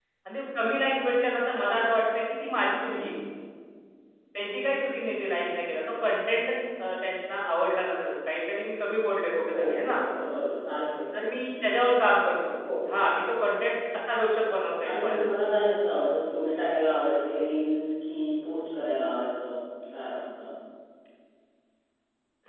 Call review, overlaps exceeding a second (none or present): none